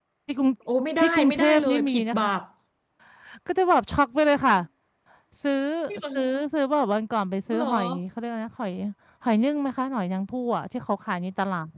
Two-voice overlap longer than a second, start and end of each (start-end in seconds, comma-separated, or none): 1.0-2.3